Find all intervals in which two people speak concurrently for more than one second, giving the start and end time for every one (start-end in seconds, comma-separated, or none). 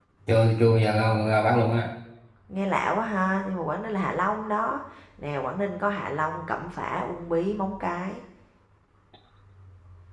none